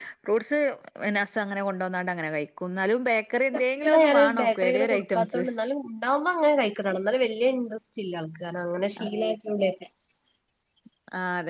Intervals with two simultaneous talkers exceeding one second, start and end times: 3.8-5.4

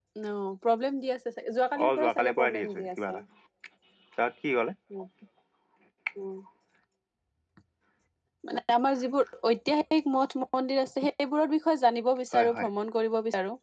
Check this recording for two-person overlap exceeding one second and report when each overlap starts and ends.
1.9-3.2

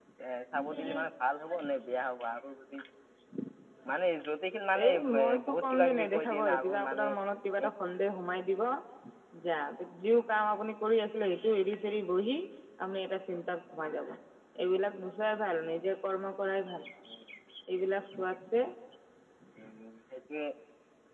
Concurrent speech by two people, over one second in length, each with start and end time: 4.8-7.0

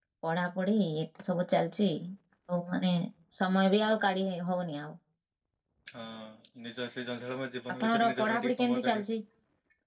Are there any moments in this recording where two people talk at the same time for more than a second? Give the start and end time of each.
7.8-9.1

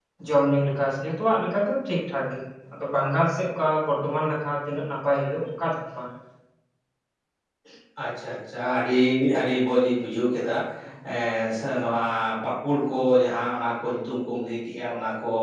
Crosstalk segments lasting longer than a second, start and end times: none

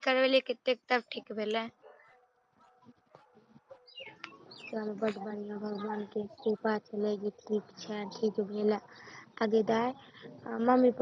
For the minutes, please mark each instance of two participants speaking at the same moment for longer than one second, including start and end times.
none

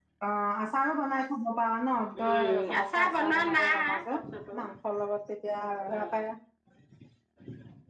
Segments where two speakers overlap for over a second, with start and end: 2.2-4.1

